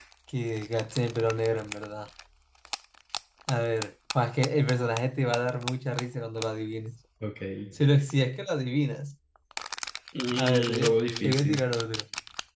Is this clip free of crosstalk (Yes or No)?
No